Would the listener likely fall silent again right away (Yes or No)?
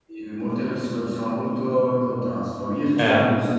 Yes